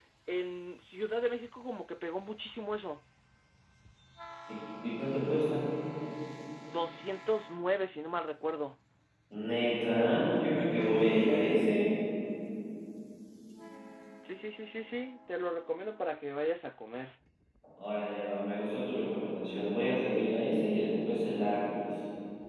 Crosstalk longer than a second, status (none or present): none